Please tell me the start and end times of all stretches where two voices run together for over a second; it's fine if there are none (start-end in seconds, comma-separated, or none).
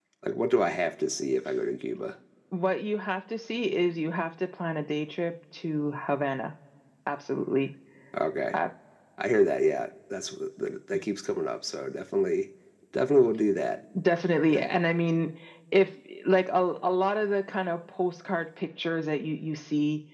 none